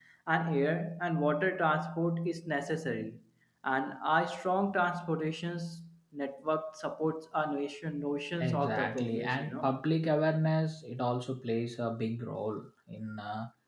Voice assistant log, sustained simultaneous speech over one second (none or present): present